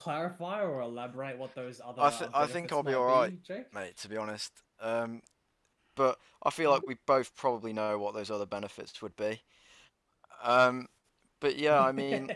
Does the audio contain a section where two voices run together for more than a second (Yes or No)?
Yes